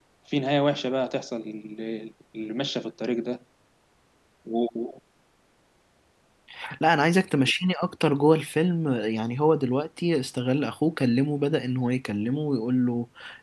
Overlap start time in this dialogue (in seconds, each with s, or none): none